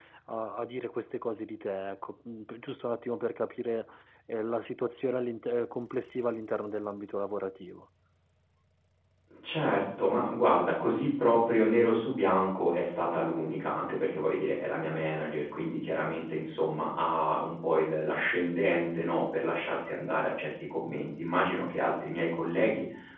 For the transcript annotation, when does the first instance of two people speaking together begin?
none

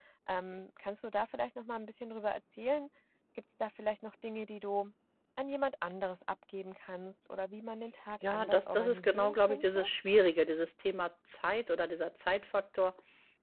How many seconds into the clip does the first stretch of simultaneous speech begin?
8 s

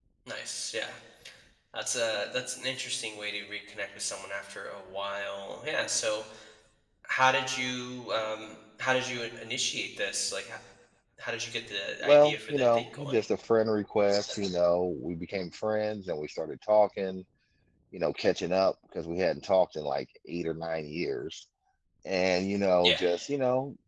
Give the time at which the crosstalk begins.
12 s

